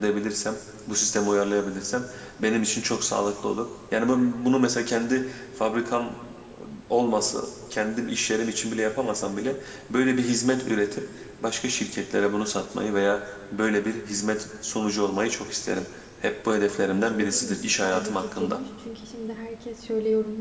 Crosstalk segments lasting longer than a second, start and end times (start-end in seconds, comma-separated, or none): 16.9-18.6